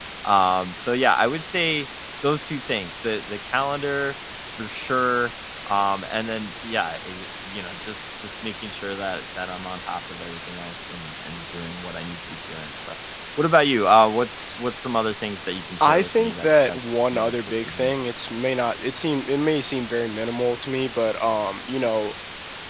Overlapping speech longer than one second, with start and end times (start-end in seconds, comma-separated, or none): 15.8-17.9